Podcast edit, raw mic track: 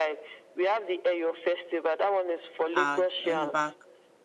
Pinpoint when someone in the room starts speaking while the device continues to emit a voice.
2.7 s

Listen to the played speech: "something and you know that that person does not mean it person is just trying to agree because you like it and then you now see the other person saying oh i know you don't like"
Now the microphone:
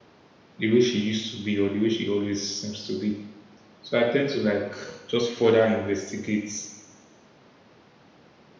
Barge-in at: 0.6 s

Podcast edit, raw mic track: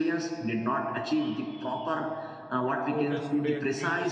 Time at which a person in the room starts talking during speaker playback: 2.9 s

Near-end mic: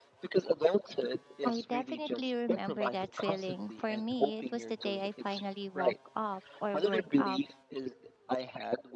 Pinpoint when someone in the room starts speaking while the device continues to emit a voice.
1.4 s

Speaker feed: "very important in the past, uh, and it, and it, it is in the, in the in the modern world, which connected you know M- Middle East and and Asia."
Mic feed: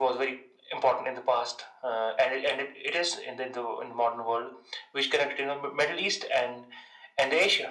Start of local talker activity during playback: none

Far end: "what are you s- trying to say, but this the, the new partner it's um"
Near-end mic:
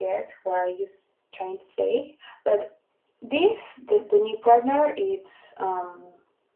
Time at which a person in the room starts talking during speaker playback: none

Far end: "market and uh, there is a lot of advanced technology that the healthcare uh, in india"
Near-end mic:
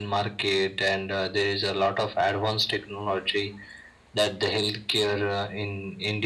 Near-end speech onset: none

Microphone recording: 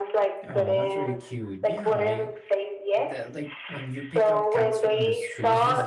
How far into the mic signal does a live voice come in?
0.5 s

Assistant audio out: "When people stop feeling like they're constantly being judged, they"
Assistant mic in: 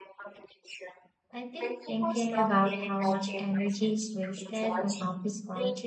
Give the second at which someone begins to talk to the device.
1.3 s

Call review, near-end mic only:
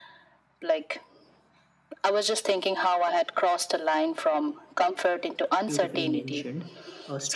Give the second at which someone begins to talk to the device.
5.6 s

